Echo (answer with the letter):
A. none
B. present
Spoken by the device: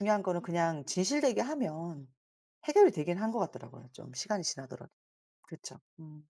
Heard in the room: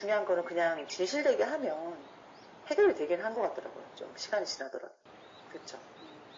B